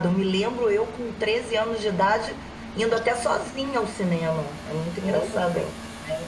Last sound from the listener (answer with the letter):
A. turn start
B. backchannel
B